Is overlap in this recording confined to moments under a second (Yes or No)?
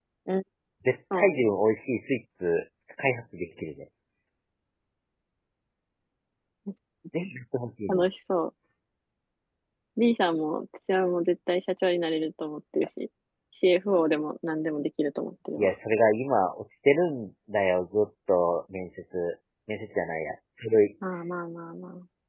Yes